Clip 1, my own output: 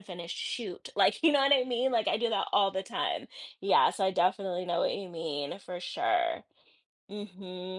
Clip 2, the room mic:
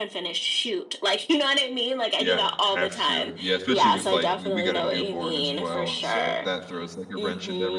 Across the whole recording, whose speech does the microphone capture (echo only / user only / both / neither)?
both